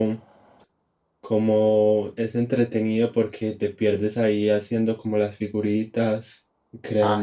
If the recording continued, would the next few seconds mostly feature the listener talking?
Yes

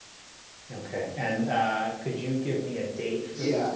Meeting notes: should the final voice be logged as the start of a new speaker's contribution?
Yes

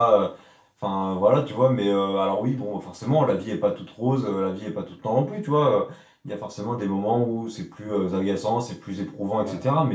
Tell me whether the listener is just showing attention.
Yes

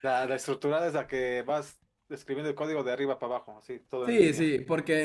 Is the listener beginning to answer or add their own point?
Yes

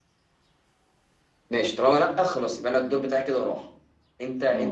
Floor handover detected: Yes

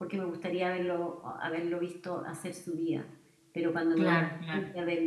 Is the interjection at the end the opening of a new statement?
No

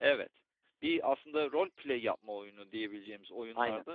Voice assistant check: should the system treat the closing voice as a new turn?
No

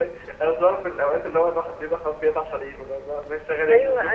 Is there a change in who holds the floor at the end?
Yes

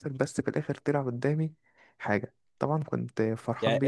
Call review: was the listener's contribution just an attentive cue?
No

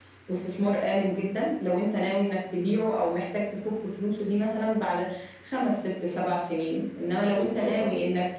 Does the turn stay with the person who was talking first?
Yes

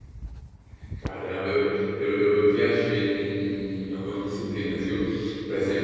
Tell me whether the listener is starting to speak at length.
No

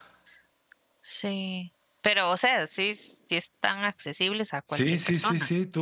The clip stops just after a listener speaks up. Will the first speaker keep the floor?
No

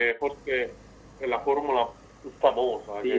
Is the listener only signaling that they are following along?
No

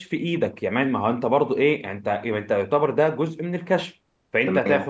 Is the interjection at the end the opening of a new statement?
No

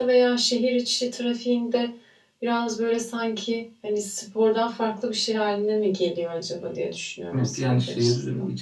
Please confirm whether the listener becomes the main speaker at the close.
Yes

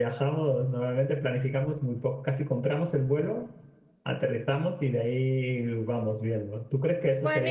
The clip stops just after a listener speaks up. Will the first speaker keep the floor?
No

